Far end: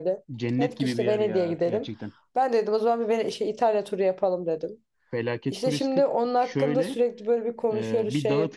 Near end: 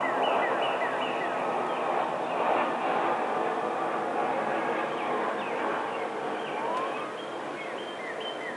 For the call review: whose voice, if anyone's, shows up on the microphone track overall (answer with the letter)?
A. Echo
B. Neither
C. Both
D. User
B